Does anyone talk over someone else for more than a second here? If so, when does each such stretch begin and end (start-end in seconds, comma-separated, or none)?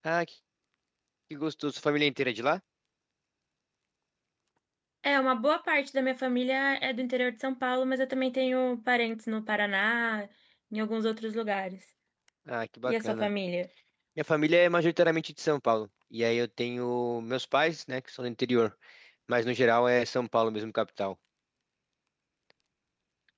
none